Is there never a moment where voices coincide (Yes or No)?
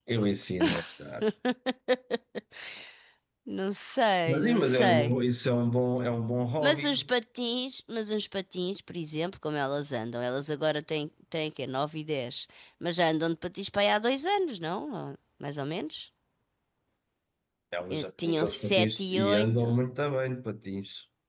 No